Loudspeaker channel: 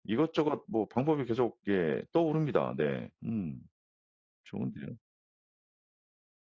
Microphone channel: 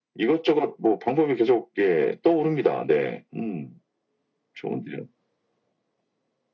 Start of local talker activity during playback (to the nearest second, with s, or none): none